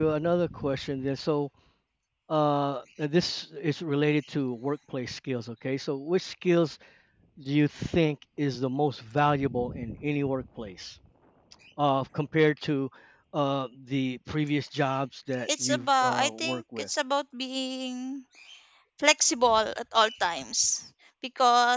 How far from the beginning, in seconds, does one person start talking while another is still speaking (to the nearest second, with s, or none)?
15 s